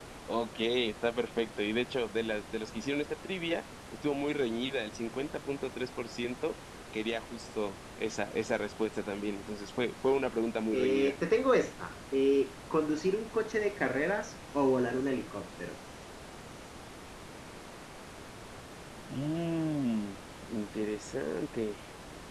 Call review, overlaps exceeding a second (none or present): none